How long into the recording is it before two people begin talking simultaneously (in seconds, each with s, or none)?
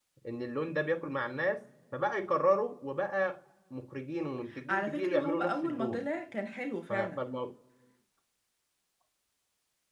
4.7 s